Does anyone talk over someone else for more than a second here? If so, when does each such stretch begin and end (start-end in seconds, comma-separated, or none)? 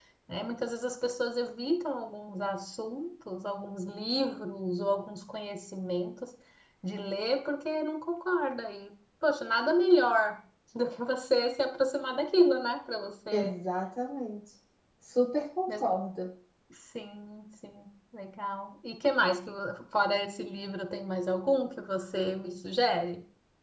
none